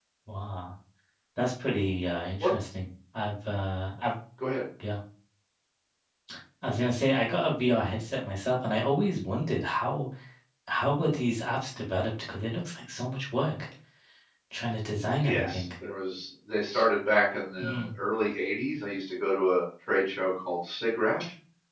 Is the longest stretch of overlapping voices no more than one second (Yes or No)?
Yes